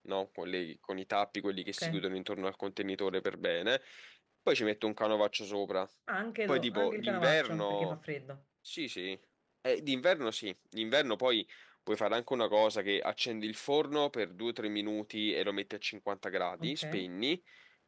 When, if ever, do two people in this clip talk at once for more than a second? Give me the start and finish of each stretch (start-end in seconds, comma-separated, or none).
6.5-8.0